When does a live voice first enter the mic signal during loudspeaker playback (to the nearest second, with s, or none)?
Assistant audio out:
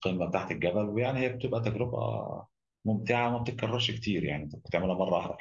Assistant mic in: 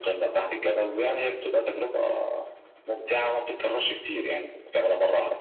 none